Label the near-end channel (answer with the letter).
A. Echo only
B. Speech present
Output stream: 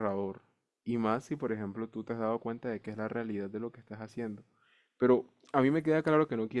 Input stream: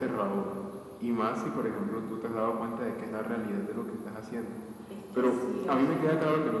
B